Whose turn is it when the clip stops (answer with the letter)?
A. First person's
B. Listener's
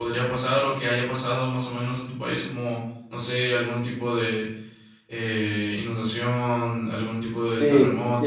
B